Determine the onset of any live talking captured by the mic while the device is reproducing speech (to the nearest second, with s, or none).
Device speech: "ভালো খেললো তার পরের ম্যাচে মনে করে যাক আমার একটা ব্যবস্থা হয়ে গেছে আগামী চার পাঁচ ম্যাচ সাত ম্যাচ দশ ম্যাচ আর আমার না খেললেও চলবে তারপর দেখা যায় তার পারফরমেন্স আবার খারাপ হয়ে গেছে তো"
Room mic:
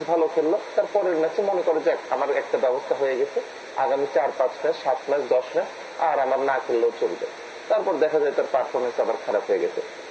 none